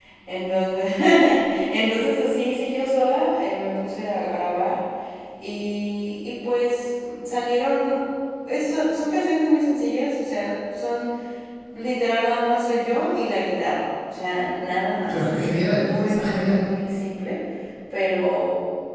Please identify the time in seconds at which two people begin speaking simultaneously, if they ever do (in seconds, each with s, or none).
15.0 s